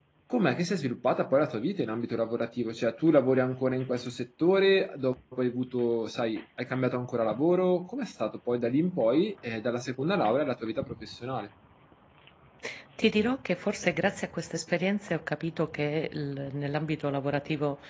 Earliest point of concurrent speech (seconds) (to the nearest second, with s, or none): none